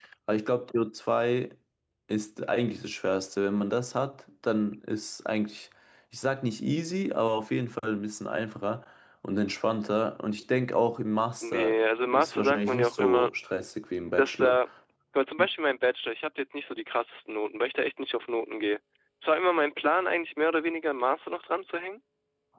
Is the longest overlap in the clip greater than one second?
Yes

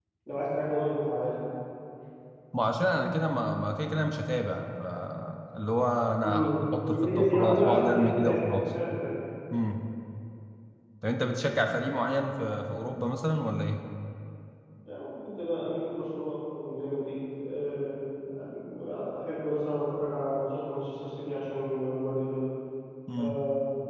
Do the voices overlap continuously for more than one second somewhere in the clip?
Yes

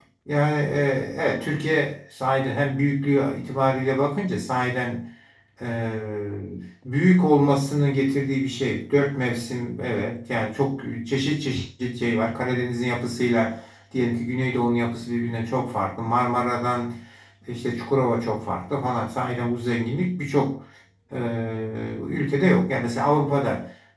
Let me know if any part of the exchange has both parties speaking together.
No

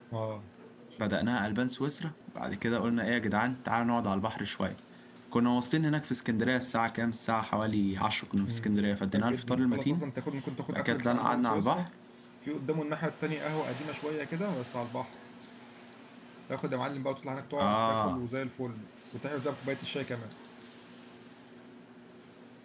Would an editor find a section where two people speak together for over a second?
Yes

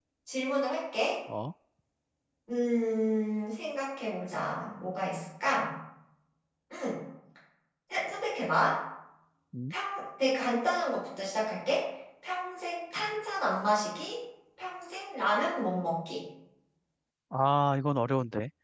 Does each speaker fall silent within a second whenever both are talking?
Yes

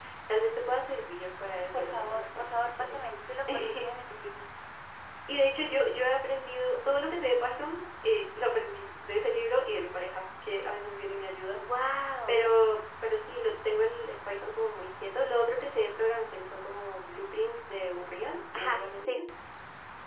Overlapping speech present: Yes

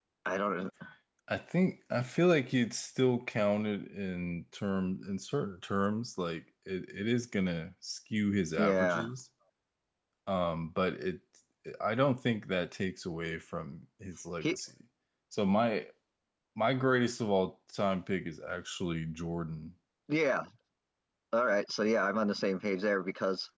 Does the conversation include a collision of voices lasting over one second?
No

